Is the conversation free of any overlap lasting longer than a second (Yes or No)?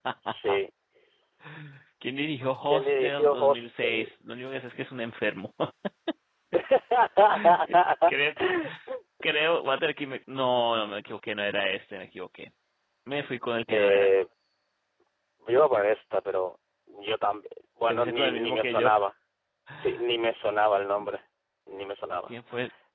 No